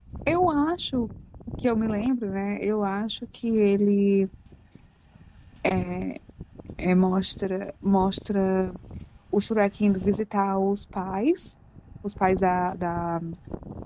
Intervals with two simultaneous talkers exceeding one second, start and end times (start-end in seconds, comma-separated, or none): none